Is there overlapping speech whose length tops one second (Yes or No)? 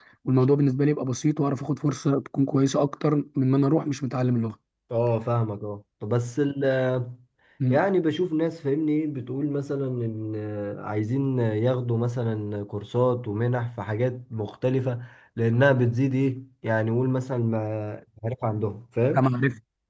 No